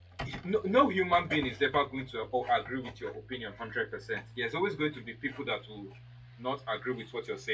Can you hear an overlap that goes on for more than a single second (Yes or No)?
No